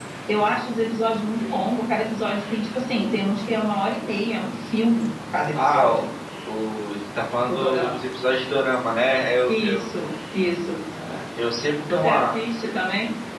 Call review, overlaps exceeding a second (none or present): none